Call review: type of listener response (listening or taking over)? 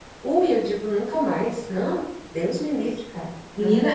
taking over